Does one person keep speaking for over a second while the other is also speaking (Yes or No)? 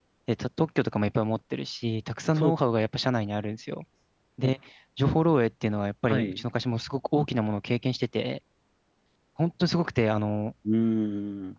No